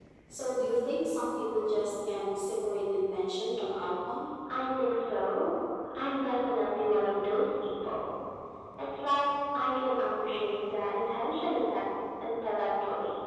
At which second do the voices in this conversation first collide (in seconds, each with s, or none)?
none